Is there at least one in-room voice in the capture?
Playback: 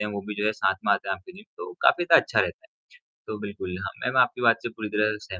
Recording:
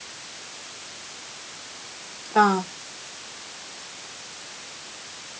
Yes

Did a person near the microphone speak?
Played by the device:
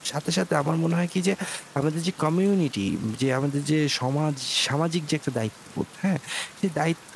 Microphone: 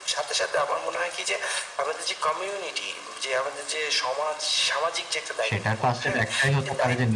Yes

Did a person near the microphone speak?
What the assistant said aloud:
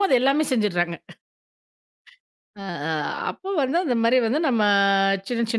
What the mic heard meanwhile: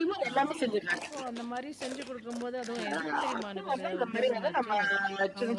Yes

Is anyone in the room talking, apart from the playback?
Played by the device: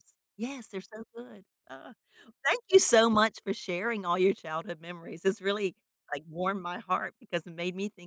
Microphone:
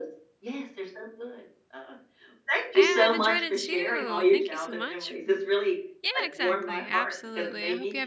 Yes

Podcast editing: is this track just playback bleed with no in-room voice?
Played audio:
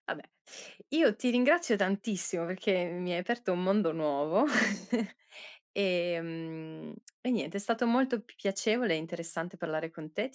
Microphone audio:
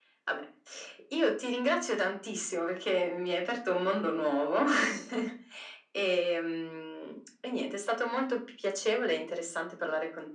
Yes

